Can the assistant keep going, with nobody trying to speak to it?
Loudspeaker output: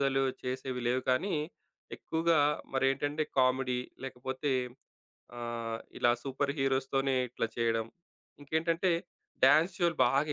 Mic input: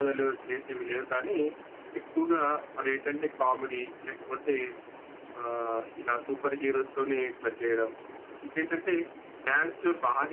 Yes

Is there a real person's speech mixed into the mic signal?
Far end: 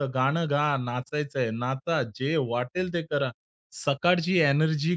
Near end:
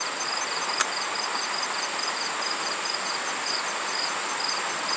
No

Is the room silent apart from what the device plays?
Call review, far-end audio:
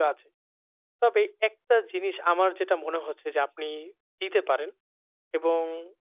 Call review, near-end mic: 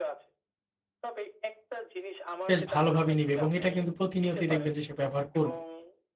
No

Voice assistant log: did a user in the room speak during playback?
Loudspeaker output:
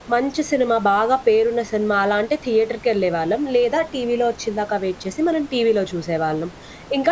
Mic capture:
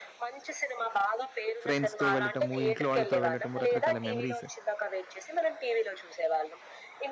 Yes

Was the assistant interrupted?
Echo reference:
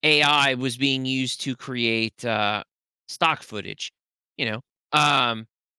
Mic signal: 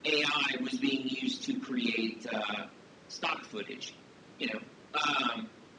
No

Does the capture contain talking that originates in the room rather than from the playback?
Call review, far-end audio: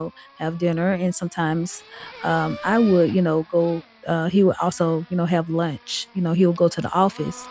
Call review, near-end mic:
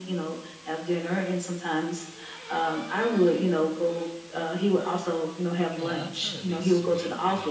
Yes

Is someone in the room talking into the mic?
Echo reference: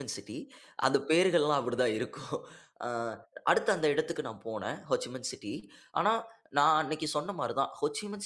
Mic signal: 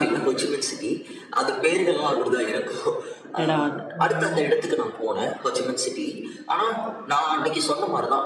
Yes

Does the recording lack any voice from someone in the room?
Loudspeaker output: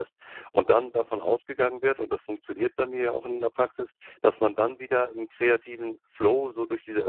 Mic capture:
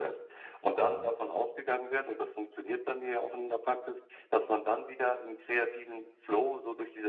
No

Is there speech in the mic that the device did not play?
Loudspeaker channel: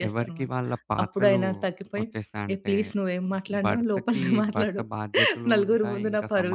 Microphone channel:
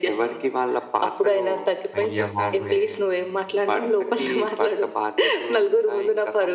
Yes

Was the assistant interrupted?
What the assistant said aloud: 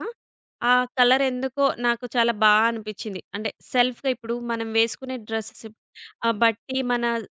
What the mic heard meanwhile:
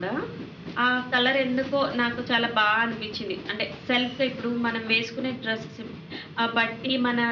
No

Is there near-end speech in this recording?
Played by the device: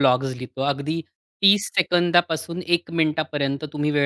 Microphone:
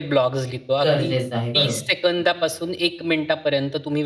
Yes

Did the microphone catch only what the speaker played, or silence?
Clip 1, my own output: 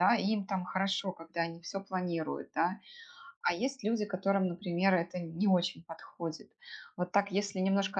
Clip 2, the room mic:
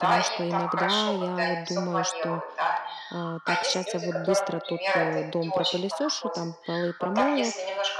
No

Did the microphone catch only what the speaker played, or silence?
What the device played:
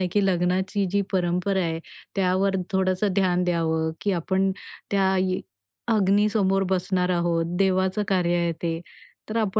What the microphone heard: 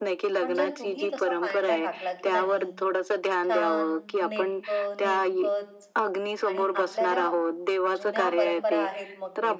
No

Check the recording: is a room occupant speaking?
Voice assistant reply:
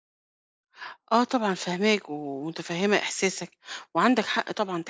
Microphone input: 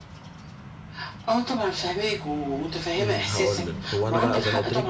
Yes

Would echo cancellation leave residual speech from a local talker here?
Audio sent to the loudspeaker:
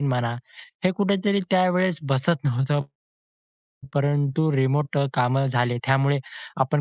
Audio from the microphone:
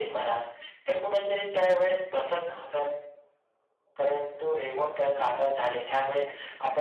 No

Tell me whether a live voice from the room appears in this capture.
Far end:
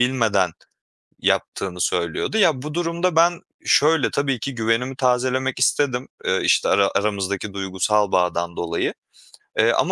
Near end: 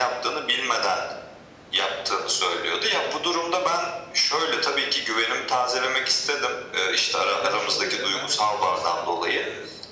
Yes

